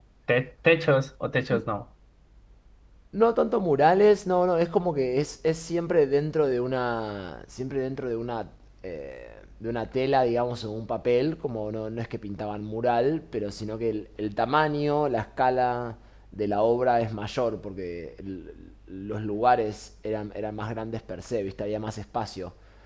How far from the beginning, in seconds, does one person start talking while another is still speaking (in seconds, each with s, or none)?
none